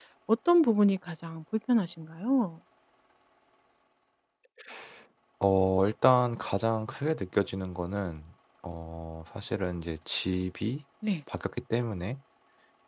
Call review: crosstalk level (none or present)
none